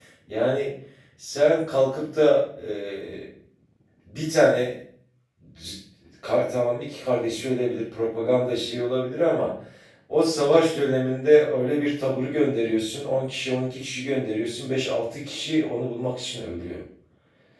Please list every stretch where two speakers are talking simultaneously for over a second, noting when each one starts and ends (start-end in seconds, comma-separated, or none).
none